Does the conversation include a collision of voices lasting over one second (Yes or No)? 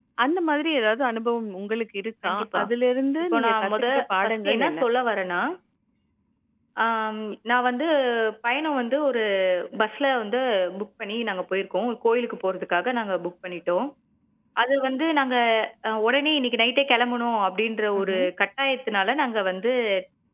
Yes